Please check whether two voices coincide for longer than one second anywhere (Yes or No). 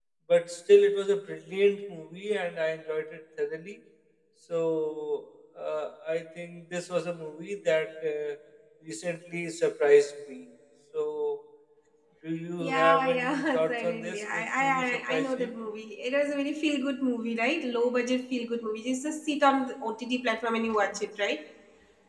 Yes